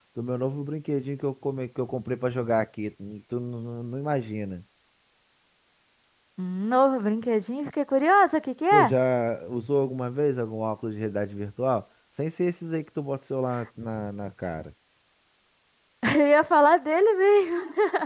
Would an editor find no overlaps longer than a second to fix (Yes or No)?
Yes